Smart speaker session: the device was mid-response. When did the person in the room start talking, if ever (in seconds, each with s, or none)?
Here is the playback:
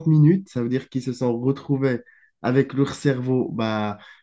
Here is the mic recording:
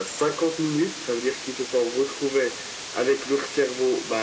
none